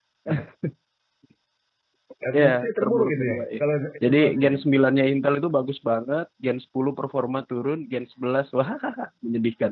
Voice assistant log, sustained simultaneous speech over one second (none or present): present